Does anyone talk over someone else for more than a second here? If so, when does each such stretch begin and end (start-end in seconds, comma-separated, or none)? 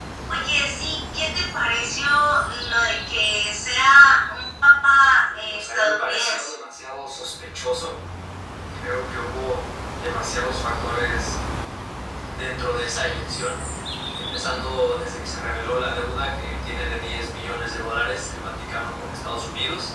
5.3-6.5